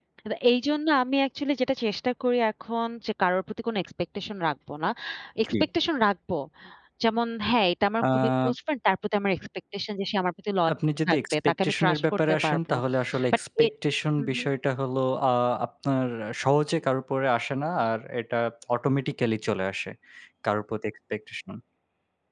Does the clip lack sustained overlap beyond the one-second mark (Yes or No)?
No